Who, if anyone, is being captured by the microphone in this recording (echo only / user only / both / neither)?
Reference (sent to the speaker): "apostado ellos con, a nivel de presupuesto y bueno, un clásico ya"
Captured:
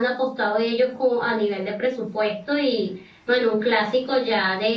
echo only